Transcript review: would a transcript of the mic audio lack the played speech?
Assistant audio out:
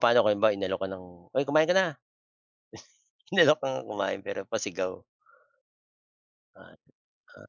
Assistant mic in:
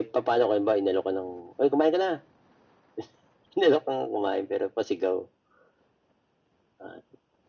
No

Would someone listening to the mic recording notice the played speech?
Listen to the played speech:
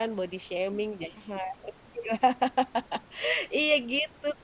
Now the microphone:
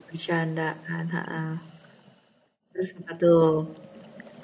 No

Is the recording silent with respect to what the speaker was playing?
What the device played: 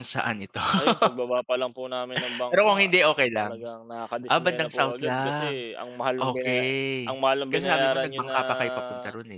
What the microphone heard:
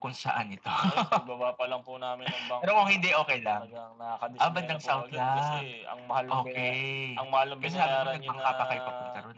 No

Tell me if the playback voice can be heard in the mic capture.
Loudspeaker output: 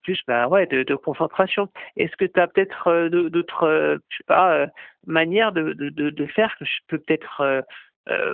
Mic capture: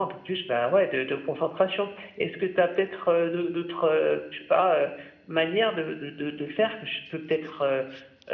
Yes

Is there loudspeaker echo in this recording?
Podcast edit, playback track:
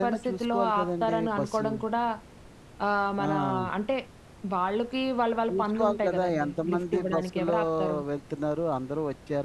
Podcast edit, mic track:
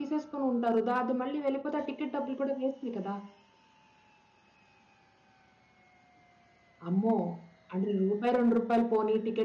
No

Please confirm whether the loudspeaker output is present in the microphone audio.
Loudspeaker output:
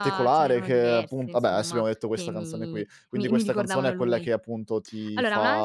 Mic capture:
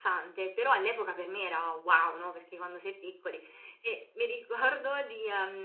No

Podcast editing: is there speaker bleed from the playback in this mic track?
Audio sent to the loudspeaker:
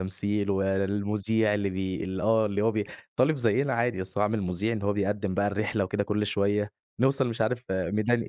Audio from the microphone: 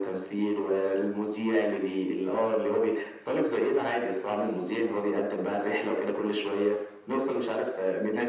Yes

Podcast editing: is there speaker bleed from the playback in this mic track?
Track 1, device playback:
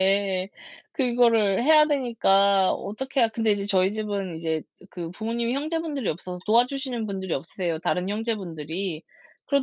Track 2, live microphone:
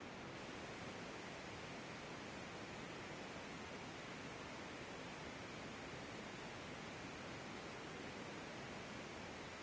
No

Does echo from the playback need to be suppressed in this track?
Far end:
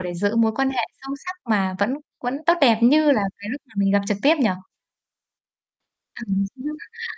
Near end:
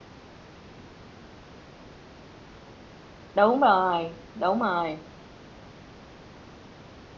No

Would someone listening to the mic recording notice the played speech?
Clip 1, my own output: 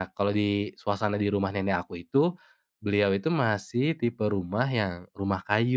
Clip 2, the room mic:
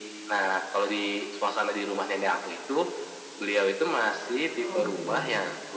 Yes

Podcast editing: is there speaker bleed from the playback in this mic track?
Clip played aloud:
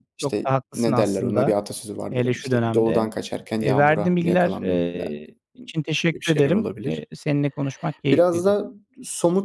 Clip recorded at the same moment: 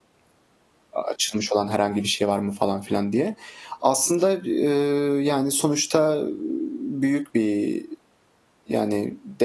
No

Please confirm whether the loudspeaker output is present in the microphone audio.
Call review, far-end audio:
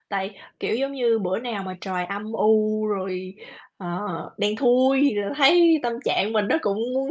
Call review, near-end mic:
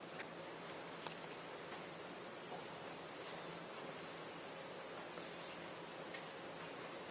No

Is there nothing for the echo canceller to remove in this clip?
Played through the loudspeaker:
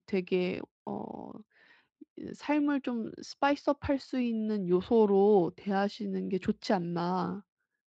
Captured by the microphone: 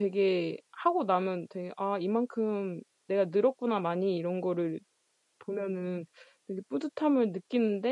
Yes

